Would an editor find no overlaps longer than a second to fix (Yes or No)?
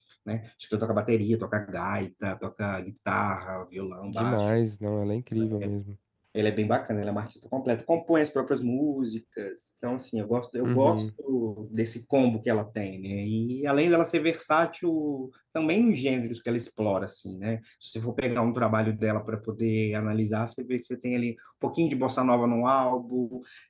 Yes